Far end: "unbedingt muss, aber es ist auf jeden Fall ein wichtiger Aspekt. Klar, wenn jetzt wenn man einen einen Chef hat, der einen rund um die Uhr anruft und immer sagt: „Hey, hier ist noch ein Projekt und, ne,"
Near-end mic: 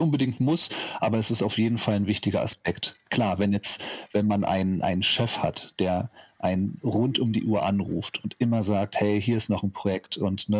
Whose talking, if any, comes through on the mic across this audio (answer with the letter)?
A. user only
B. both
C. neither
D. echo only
D